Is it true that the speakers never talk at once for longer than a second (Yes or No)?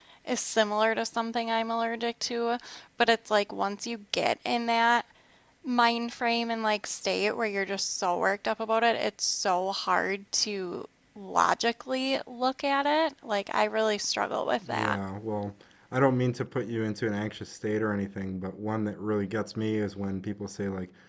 Yes